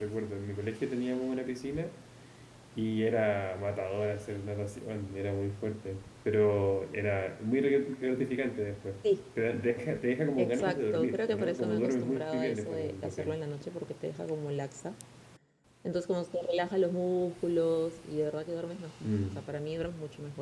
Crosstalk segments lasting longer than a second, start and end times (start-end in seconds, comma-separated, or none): 10.4-13.4